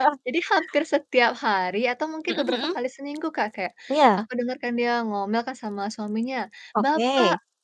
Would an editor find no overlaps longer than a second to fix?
Yes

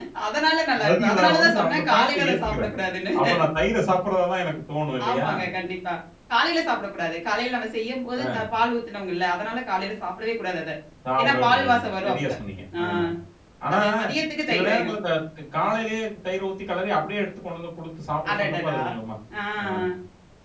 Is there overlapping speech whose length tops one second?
Yes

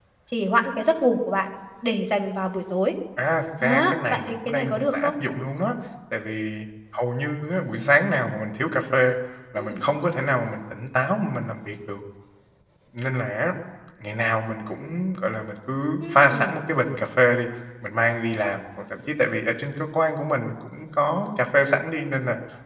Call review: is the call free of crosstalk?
No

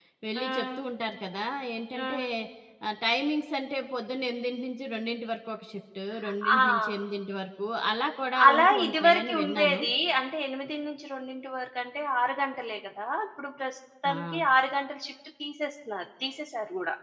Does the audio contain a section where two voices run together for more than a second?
Yes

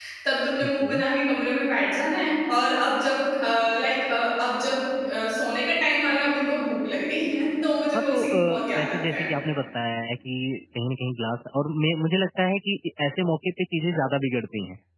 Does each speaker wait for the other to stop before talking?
No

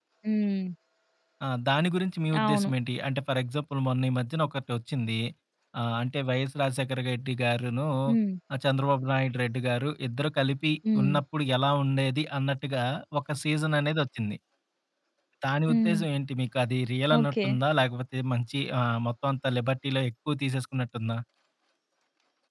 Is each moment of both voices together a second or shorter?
Yes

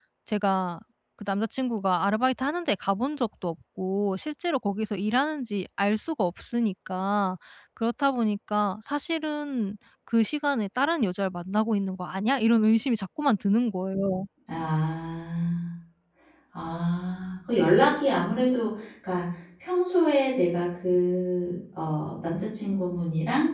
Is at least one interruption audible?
No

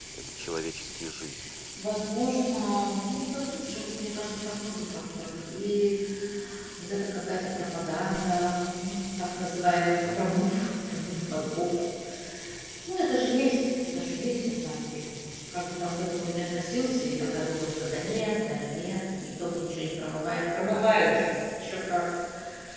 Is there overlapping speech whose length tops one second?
No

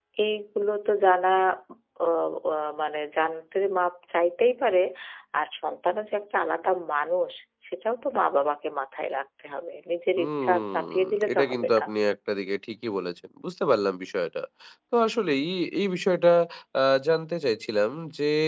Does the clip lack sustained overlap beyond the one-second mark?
No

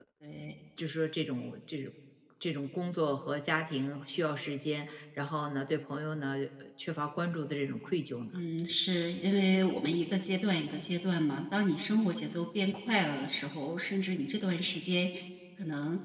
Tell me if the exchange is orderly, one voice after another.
Yes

